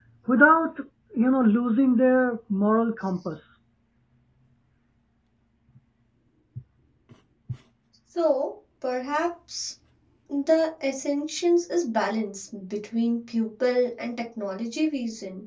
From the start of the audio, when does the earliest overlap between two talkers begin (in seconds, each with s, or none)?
none